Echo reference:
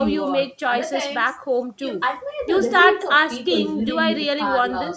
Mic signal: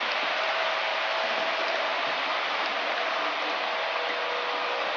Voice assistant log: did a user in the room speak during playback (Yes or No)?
No